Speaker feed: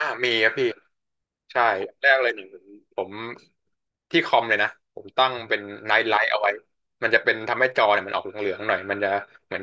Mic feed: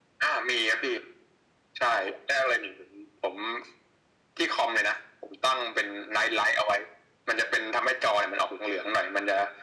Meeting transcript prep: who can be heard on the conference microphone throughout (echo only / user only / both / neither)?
echo only